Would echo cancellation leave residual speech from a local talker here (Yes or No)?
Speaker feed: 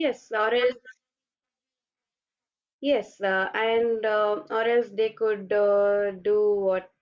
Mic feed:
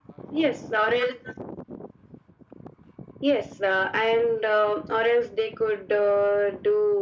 No